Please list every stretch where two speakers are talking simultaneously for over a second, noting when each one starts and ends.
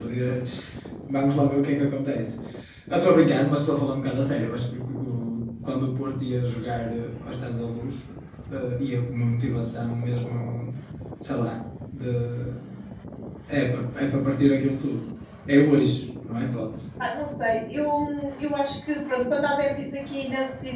none

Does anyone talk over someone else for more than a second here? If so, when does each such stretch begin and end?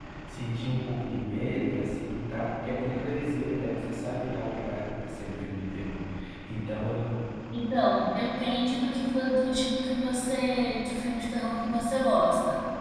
none

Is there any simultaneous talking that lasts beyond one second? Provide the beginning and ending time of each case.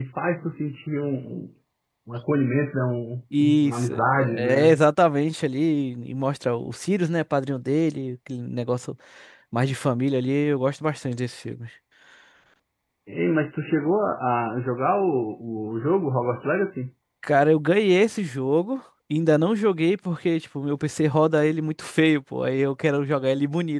3.4-4.8

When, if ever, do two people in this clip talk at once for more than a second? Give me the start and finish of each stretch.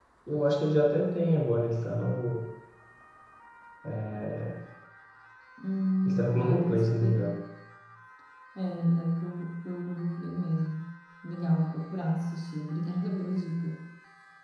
6.0-7.2

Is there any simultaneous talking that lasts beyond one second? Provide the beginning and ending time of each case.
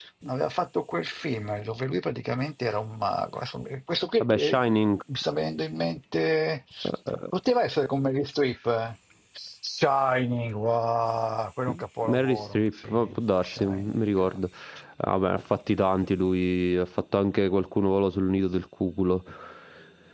12.0-14.3

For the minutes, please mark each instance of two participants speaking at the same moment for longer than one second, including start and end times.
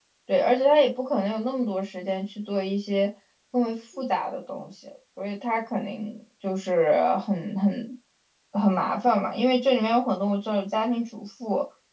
none

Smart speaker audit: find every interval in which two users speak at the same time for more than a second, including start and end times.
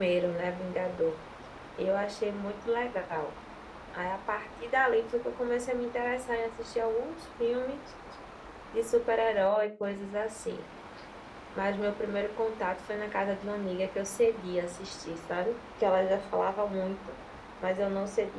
none

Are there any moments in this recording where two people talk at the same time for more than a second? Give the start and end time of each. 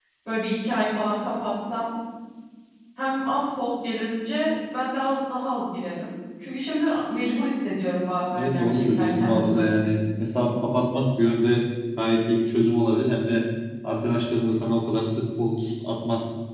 8.3-9.7

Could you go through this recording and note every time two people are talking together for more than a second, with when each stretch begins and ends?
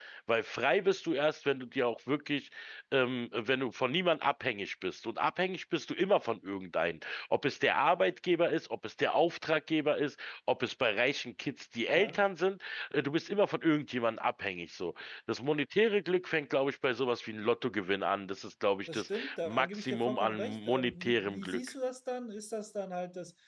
18.9-21.6

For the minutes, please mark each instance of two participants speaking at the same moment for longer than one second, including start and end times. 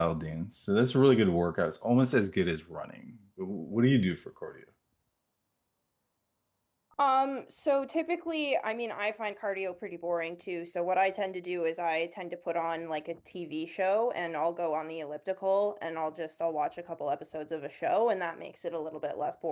none

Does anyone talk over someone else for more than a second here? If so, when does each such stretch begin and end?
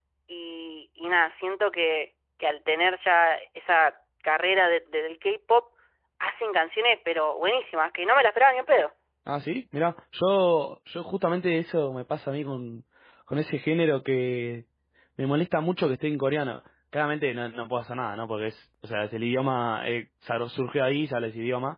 none

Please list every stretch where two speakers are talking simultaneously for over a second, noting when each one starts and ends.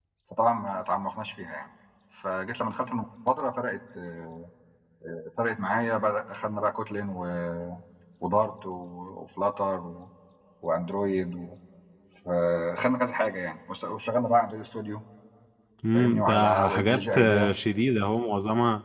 15.9-17.5

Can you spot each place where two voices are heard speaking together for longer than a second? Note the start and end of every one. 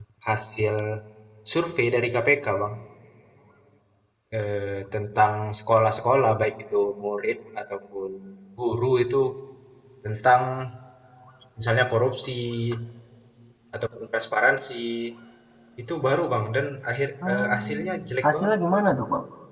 17.3-18.6

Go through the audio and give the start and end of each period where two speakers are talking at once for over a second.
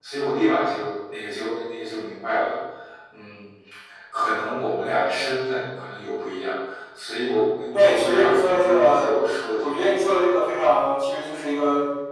7.7-9.1

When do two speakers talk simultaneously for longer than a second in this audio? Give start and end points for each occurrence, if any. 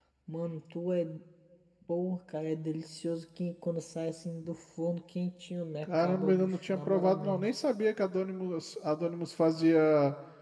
5.8-7.5

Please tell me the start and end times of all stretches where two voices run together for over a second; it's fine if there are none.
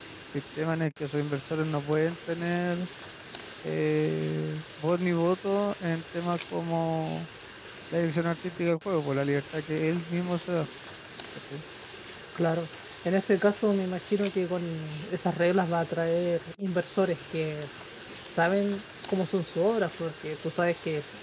none

